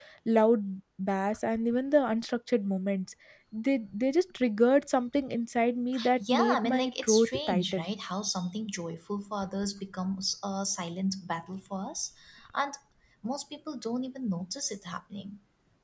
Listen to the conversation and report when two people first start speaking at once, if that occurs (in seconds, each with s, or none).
6.2 s